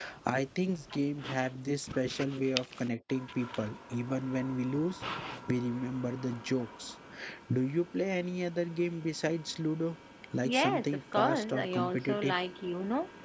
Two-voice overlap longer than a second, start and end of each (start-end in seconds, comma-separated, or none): 10.4-12.3